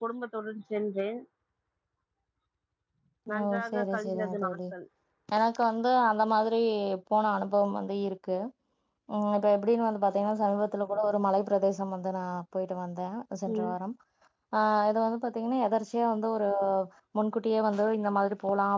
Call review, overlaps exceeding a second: present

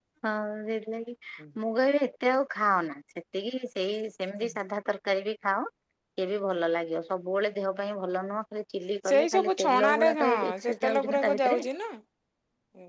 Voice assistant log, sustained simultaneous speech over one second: present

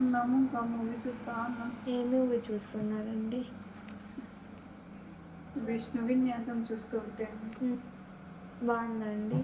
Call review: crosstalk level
none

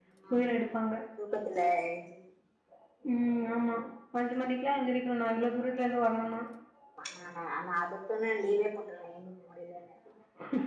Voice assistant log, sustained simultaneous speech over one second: none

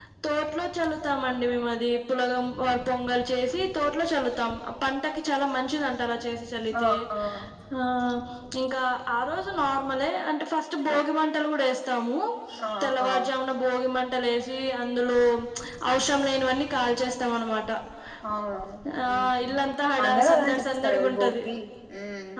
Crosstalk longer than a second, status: present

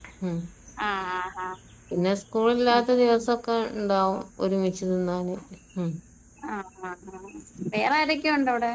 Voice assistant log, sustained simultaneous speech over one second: none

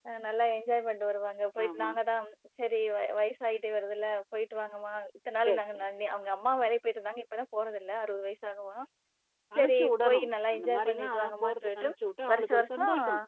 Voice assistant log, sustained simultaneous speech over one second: present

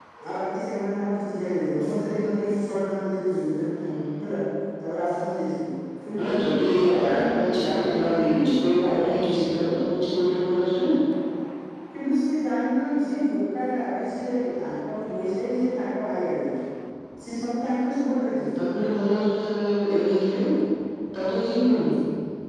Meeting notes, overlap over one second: present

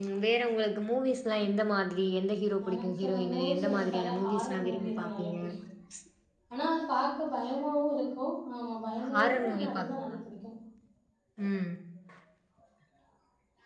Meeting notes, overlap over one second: present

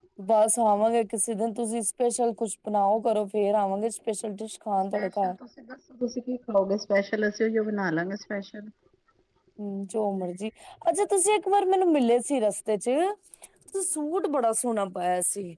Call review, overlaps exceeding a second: none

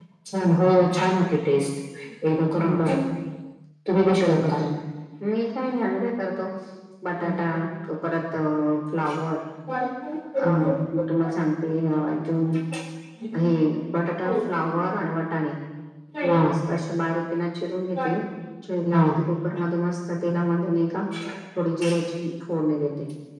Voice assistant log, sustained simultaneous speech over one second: none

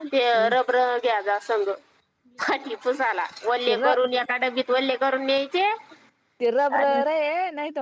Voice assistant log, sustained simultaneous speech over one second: none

